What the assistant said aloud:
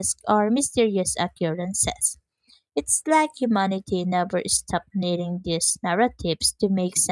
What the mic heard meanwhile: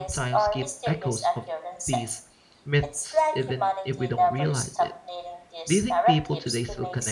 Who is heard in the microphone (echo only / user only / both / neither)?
both